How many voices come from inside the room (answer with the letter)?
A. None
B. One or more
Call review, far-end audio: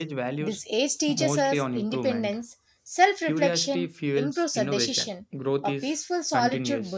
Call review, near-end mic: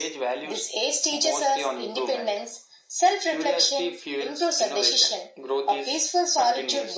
A